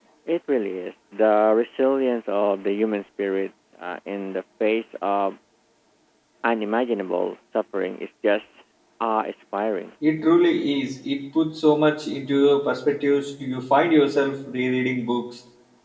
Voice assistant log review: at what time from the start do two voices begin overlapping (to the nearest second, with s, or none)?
none